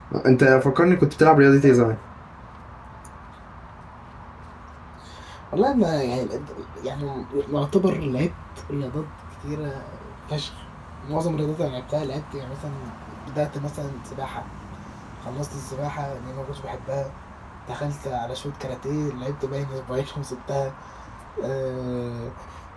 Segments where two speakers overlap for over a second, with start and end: none

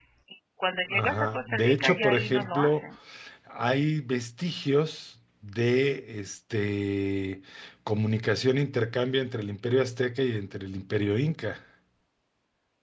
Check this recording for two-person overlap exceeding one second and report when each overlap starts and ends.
0.9-2.9

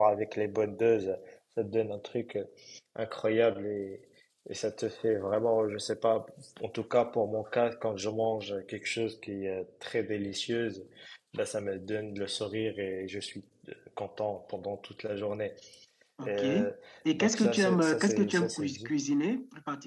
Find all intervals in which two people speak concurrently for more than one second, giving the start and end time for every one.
17.1-18.9

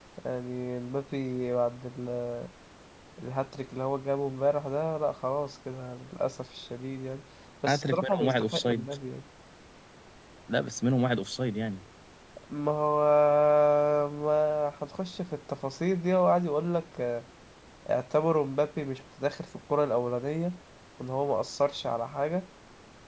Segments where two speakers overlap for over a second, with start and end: 7.7-8.9

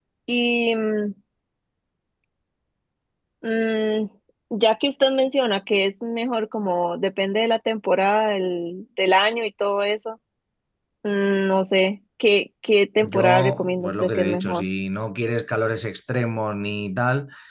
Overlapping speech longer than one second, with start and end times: 13.0-14.7

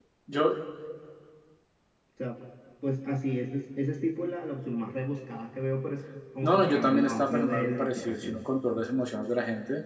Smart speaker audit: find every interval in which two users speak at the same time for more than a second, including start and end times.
6.4-8.4

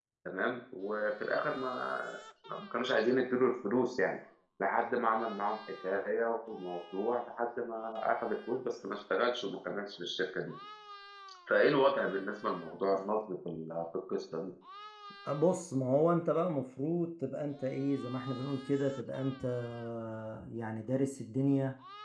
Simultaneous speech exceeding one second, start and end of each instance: none

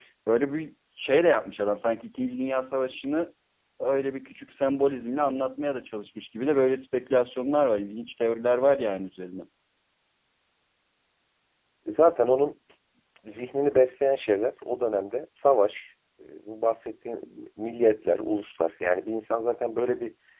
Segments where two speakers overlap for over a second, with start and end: none

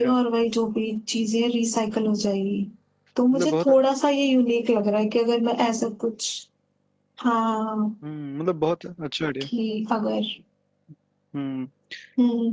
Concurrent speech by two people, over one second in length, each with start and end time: none

